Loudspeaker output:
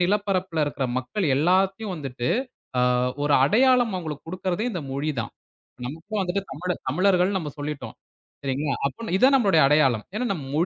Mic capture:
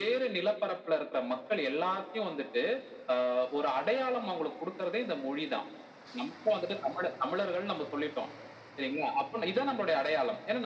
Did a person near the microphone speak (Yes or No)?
No